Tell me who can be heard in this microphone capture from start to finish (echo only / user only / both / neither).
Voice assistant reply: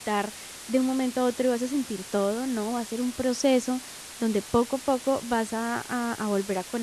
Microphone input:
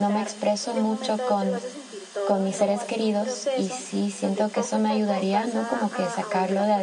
both